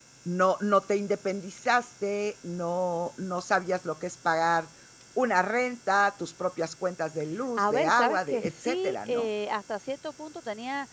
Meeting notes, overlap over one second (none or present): present